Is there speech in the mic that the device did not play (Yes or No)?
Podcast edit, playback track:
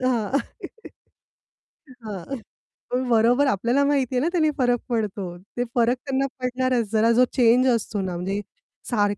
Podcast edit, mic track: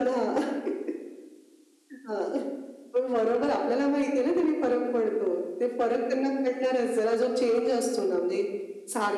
No